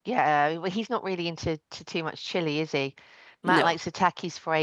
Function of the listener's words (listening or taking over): listening